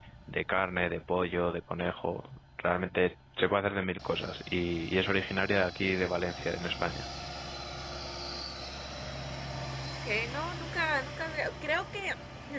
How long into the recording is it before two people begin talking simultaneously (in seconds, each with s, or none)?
none